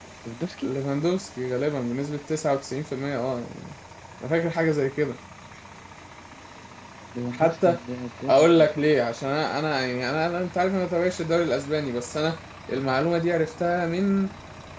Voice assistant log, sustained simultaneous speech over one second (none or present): none